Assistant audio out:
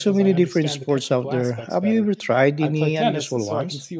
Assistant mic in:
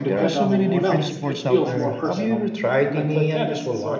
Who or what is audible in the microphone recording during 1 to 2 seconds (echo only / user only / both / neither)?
both